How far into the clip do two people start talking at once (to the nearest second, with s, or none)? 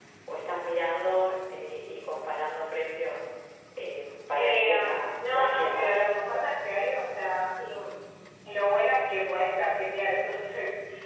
4 s